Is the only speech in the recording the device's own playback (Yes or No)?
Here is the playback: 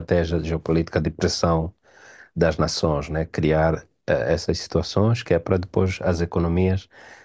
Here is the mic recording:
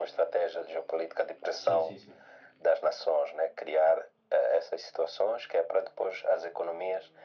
No